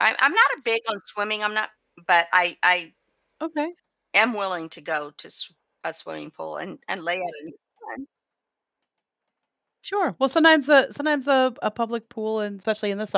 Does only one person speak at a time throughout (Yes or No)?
Yes